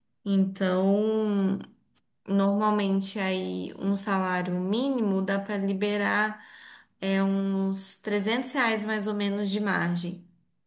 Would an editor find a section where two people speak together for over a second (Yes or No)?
No